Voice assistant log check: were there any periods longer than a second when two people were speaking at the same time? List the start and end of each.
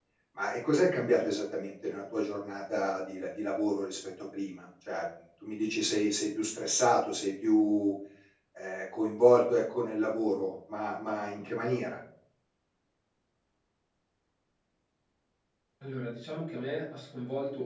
none

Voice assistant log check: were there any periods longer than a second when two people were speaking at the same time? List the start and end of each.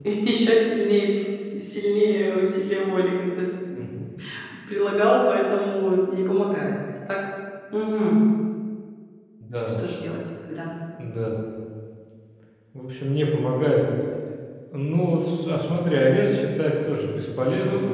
none

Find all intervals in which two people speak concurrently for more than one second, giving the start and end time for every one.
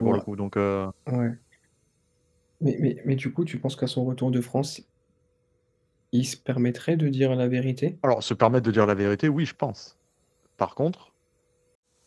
none

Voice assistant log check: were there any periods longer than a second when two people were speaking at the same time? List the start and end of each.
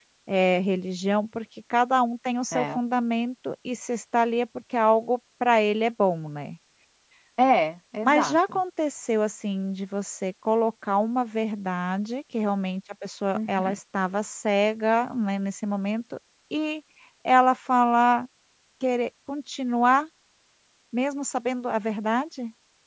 none

